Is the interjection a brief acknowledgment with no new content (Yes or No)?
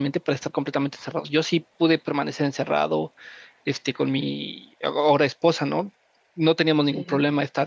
Yes